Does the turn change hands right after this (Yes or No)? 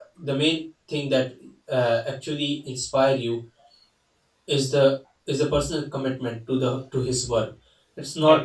No